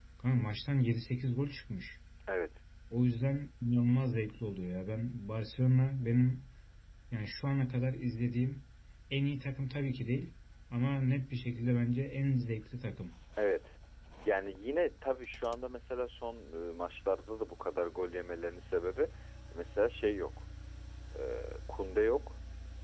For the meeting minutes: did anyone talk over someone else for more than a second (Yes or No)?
No